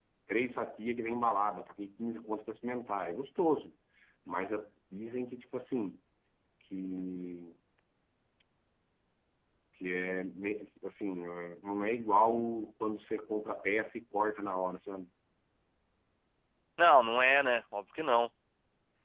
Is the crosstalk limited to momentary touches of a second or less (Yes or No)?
Yes